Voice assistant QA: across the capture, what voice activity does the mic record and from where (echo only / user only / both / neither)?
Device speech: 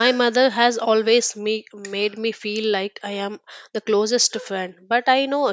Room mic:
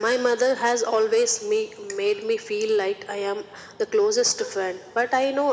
echo only